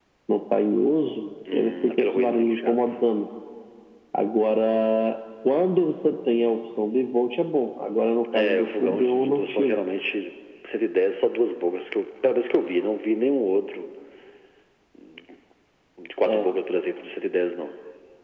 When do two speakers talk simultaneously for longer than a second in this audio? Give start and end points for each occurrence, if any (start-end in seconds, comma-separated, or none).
1.5-2.8, 8.3-9.8